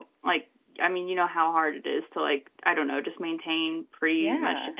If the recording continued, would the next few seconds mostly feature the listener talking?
No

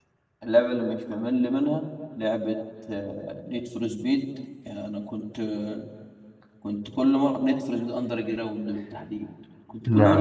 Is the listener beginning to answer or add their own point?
No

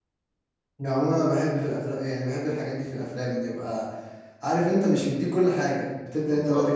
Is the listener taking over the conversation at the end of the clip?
No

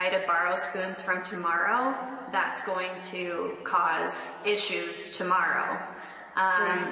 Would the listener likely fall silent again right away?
Yes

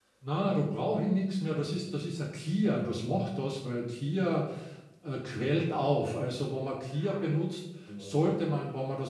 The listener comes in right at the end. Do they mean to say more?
No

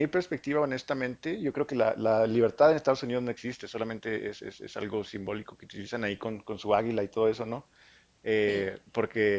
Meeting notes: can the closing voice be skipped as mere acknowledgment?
Yes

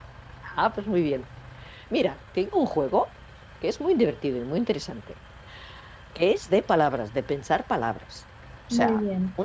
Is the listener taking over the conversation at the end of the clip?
No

